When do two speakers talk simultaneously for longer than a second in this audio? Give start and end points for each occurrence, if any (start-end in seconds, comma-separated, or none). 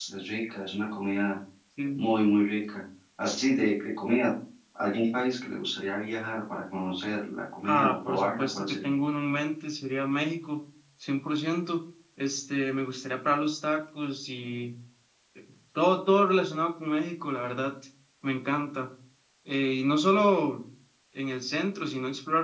7.6-8.9